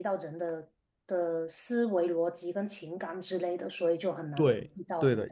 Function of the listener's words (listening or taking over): taking over